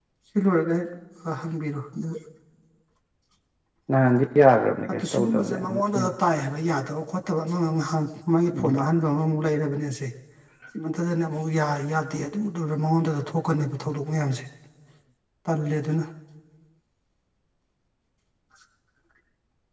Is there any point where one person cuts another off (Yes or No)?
Yes